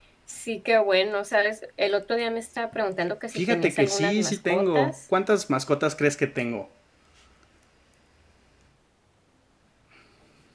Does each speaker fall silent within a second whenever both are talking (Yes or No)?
No